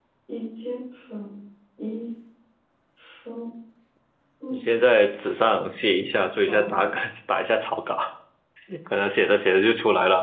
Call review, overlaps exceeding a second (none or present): none